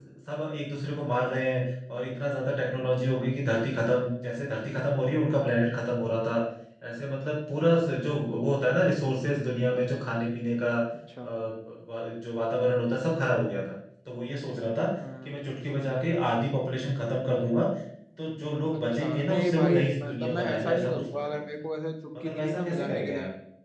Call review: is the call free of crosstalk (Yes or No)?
No